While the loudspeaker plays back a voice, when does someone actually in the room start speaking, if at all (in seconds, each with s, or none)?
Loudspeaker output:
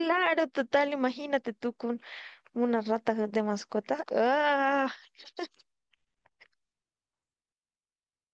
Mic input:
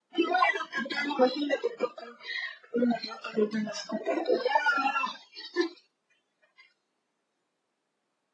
none